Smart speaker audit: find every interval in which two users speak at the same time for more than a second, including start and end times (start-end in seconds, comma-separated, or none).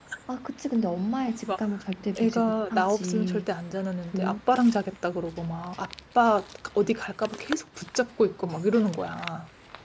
2.2-3.5